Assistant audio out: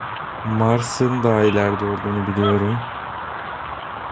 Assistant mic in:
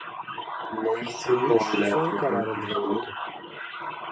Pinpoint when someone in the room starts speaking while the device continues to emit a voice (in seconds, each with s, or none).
1.4 s